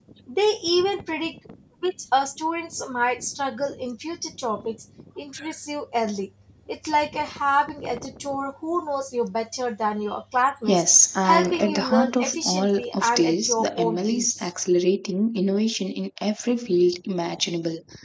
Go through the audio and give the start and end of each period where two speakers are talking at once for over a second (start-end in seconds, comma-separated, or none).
11.2-14.3